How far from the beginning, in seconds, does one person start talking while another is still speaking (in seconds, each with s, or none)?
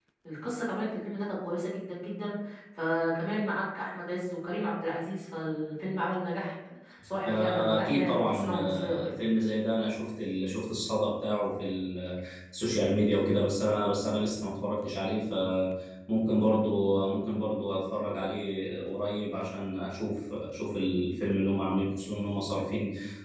7.3 s